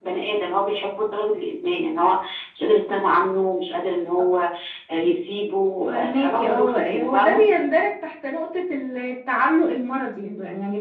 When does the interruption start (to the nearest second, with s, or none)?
6 s